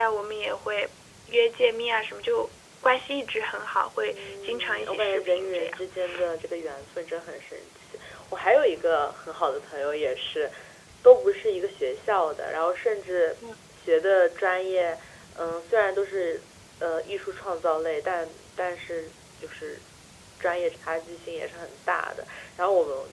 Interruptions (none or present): present